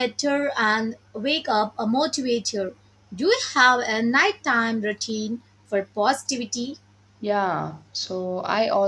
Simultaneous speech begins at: none

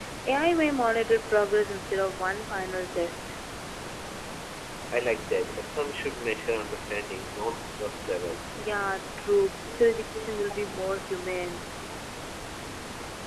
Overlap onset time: none

